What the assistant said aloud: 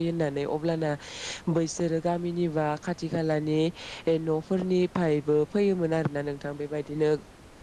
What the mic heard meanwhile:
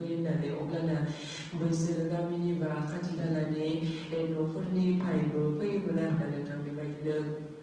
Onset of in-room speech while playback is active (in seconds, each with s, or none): none